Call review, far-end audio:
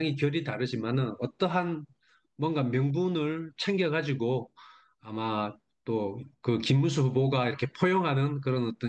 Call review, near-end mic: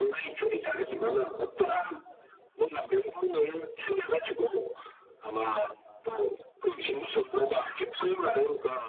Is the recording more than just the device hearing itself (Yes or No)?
No